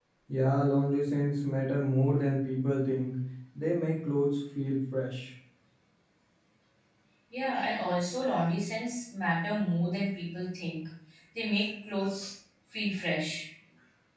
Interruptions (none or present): none